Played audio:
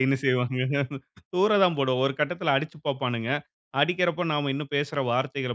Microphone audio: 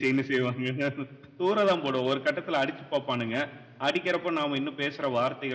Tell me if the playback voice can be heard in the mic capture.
Yes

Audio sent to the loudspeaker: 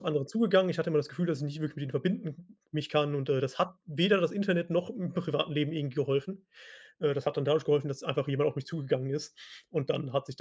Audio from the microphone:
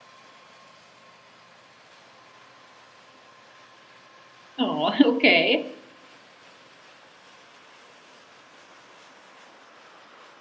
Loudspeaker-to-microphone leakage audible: No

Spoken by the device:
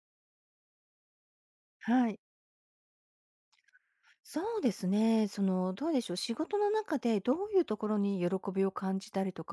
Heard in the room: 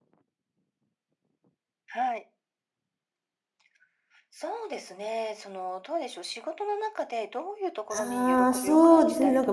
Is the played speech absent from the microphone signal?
No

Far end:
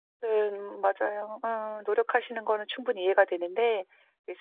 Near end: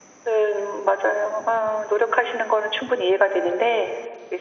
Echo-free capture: No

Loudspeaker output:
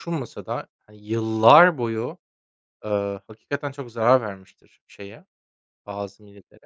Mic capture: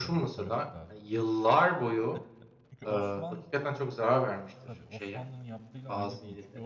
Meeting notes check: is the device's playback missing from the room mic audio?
No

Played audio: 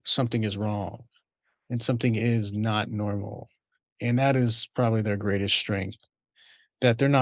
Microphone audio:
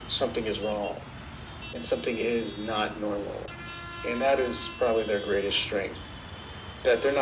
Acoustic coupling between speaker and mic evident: Yes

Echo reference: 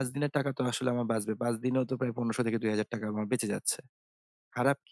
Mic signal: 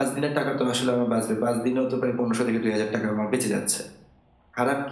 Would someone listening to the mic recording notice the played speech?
Yes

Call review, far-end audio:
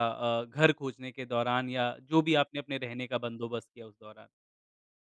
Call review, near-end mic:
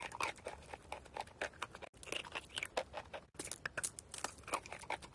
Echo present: No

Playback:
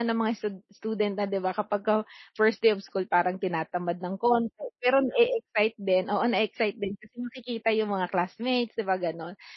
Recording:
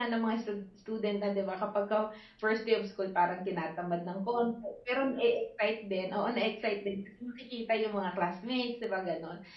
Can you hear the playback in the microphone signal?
Yes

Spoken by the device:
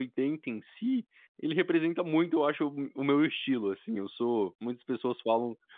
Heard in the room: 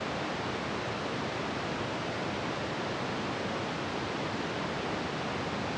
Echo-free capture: Yes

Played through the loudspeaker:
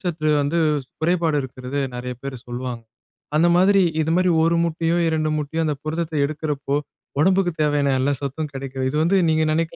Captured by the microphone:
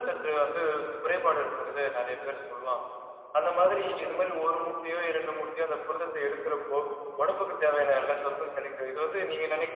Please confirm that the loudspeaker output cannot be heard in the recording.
No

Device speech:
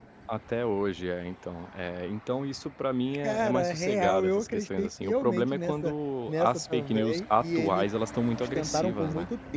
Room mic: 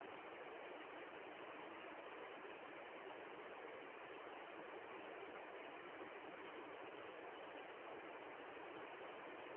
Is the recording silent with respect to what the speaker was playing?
Yes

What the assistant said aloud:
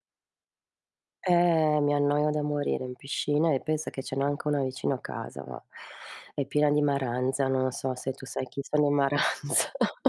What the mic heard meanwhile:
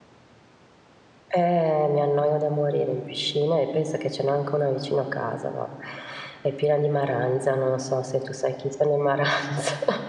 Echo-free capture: No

